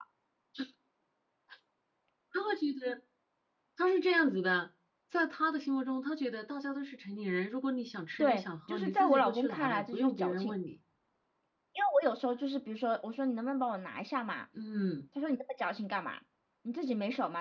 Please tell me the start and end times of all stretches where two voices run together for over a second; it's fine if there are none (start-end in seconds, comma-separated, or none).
8.2-10.5